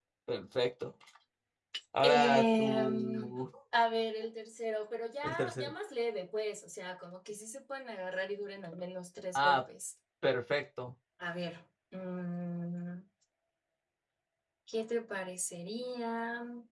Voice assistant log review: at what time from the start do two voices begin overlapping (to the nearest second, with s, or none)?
2 s